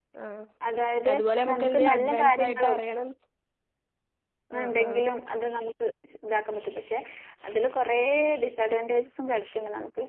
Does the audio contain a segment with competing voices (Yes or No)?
Yes